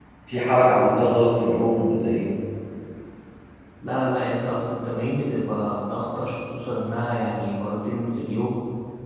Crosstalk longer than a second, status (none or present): none